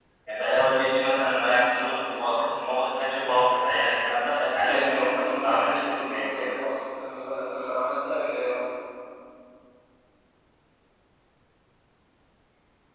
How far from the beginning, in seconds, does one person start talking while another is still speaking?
4.6 s

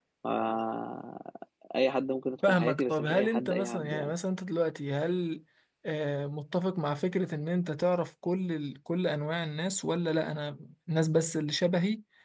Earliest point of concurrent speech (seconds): 2.5 s

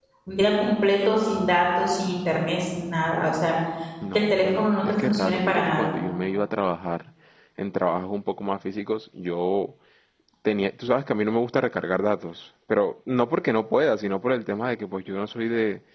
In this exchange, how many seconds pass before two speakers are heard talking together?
4.1 s

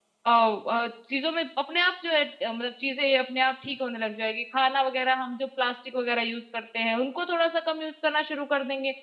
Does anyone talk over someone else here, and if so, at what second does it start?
none

